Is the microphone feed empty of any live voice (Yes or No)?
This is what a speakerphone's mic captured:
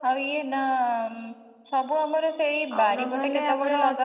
No